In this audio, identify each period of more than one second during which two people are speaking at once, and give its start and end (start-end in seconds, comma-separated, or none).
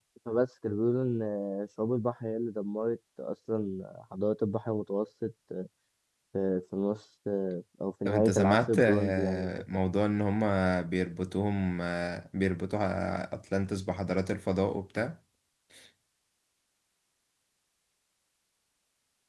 8.1-9.5